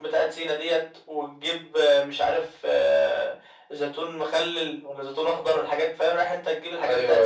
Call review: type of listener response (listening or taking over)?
listening